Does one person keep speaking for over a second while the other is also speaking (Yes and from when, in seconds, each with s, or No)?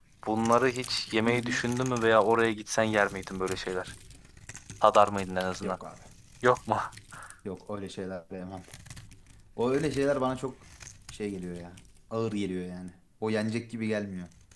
No